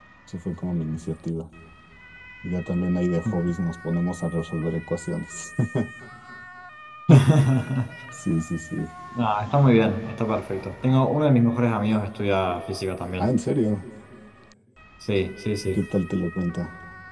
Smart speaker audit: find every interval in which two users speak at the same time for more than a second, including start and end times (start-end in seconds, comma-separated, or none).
none